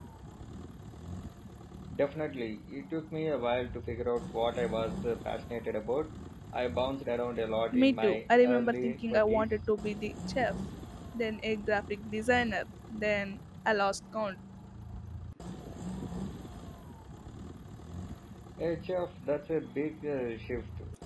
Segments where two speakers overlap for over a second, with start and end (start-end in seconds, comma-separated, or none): 7.7-9.6